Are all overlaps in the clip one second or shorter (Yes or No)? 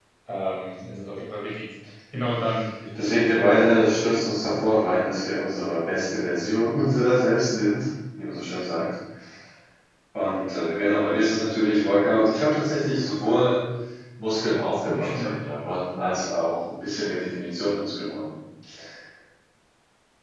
No